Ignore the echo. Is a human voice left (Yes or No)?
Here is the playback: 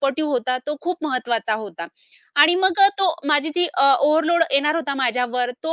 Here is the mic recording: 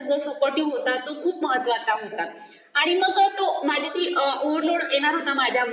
No